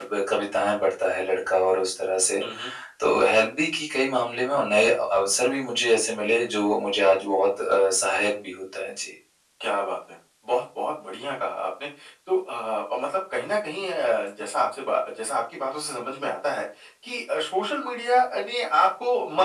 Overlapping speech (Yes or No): No